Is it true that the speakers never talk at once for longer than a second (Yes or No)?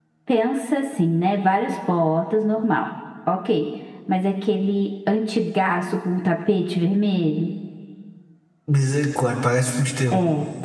Yes